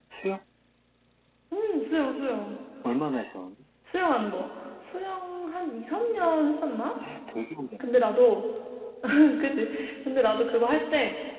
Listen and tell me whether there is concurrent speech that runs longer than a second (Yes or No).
No